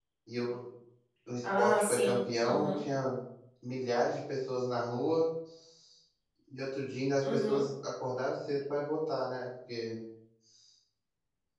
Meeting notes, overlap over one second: present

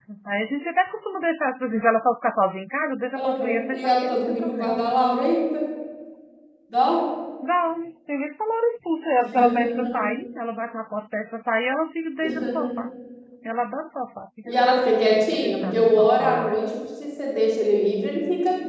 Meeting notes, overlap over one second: present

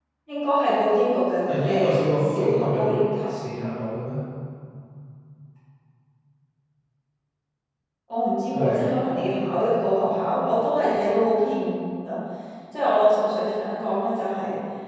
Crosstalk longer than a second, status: present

